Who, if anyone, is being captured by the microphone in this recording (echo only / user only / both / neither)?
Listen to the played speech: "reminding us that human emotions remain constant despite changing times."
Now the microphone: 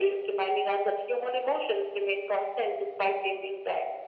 echo only